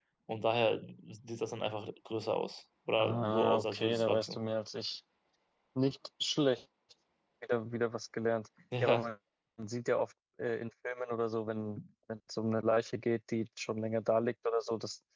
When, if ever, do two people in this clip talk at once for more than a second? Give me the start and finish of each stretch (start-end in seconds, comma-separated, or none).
3.0-4.4